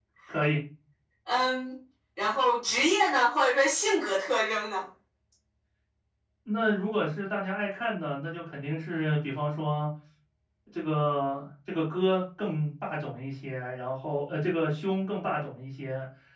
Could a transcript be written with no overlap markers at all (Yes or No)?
Yes